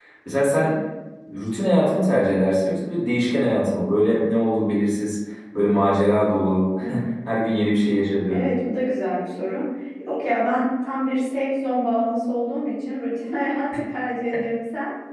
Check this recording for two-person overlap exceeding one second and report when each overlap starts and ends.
none

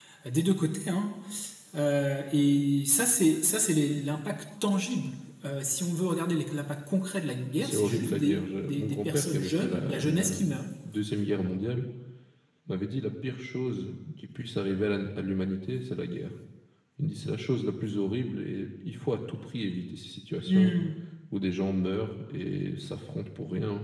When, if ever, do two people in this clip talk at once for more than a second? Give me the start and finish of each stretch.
7.6-10.4

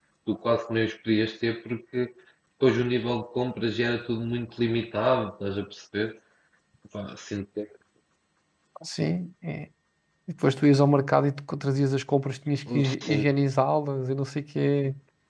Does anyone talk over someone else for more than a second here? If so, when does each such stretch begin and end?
none

